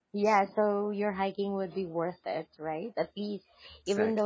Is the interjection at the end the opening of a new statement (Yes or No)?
No